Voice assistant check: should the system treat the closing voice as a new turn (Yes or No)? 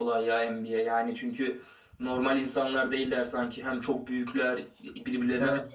Yes